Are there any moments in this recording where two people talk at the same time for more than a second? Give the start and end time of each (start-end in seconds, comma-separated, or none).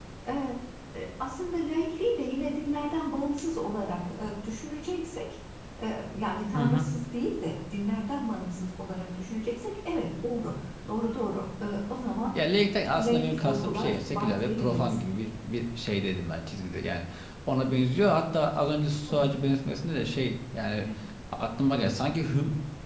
13.0-15.0